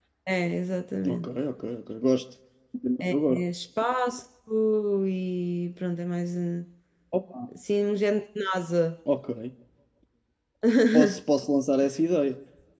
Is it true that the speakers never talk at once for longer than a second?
Yes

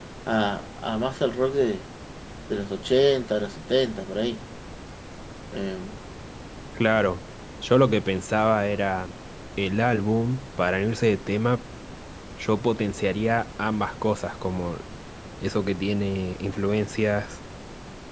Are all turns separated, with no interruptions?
Yes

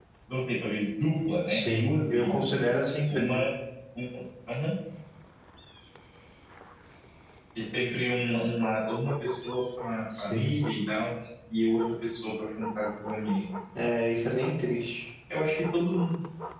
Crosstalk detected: Yes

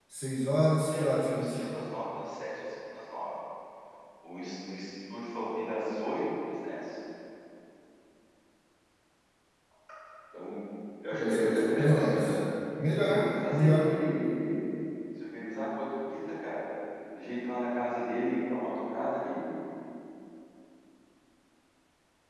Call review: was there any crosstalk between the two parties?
Yes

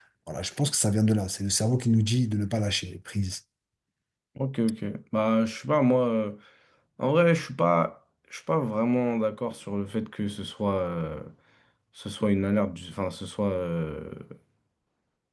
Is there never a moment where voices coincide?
Yes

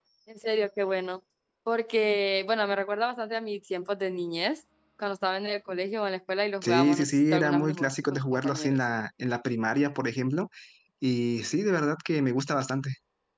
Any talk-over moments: Yes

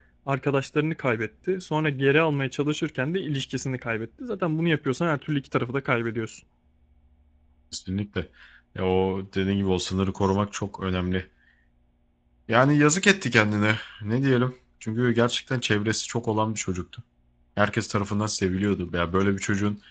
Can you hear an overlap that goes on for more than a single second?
No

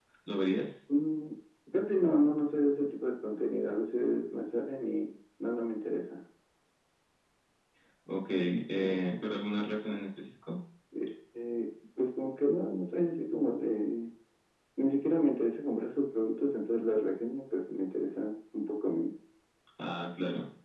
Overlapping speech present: No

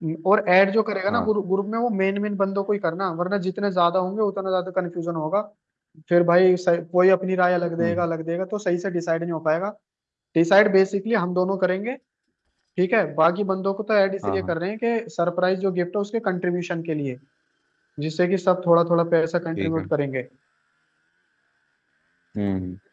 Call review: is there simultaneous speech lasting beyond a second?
No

